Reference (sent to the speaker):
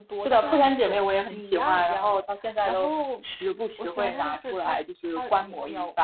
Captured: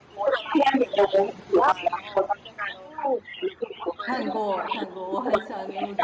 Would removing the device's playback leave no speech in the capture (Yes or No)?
No